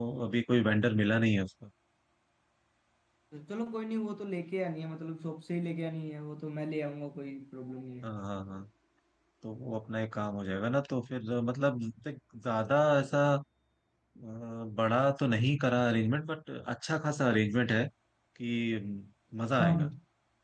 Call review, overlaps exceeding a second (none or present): none